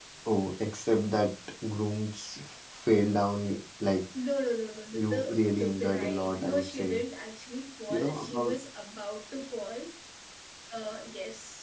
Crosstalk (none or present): present